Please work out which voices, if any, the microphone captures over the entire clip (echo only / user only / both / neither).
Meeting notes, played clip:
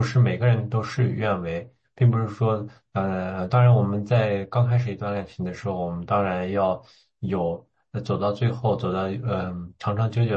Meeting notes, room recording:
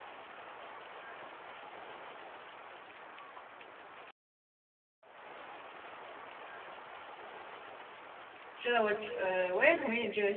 user only